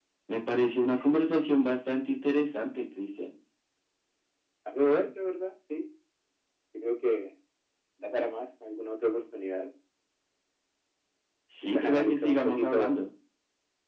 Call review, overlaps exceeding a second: present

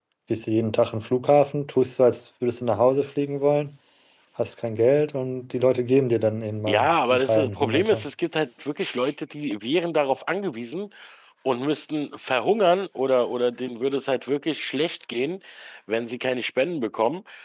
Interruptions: present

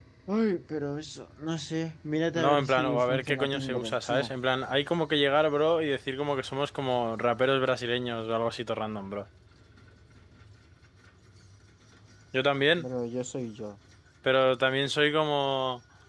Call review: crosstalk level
present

